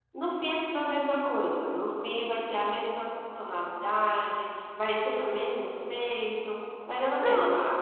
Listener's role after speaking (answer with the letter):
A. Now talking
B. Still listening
B